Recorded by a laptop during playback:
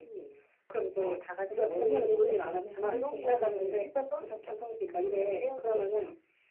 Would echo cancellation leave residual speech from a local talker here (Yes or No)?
Yes